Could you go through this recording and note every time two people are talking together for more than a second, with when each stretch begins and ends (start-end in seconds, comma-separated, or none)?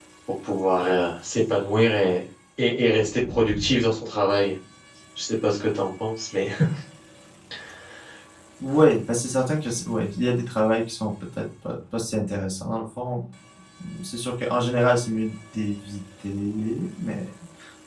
none